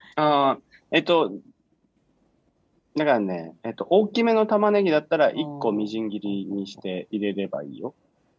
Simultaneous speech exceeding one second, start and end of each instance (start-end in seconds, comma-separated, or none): 5.3-6.6